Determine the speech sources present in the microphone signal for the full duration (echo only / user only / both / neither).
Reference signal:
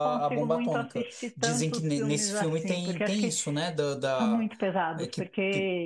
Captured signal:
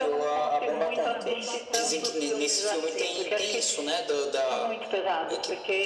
both